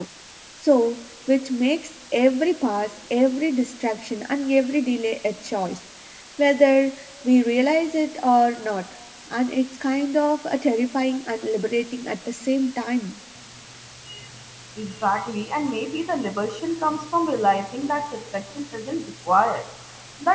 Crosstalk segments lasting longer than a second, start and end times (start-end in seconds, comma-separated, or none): none